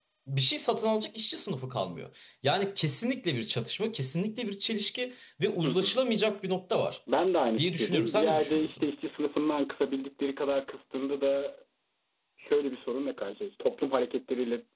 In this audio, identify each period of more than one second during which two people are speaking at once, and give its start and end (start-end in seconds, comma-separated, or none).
7.6-8.9